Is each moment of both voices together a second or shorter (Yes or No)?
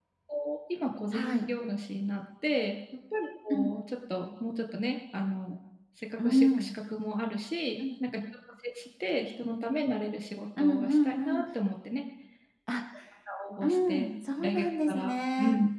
No